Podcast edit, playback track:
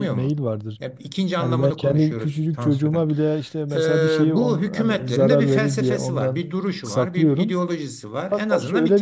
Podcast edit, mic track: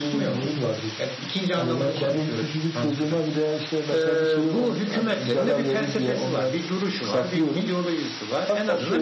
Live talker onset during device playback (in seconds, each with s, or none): none